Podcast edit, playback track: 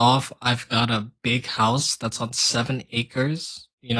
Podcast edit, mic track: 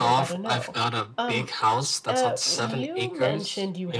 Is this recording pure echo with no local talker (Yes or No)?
No